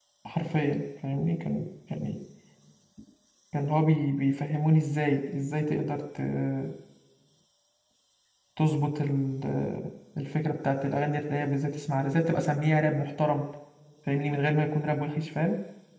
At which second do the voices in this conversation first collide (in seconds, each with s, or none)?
none